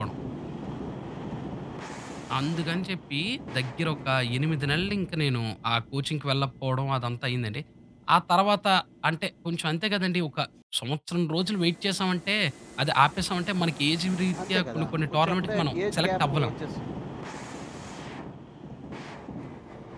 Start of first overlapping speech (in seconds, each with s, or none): 14.4 s